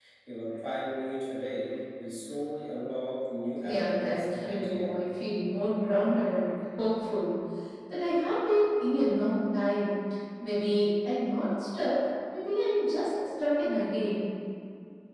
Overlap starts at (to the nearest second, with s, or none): 4 s